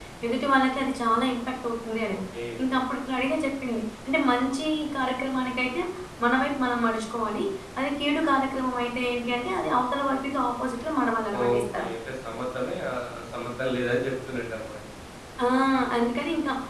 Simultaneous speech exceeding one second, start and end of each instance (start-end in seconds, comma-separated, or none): none